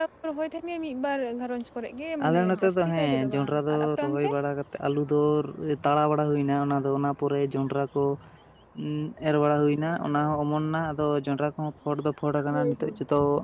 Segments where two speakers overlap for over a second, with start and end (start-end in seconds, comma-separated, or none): 2.2-4.3